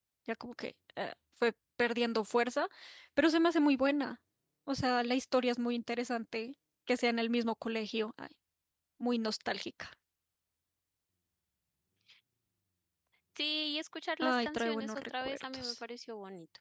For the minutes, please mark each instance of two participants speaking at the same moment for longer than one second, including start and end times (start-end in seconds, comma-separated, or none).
14.2-15.8